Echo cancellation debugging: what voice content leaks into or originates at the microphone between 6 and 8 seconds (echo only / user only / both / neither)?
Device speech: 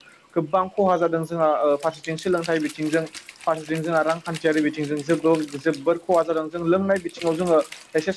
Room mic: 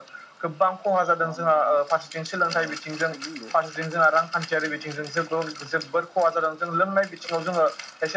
echo only